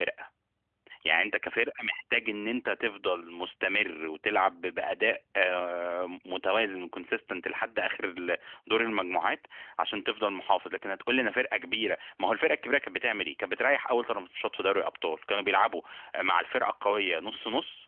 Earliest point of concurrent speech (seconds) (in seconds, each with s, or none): none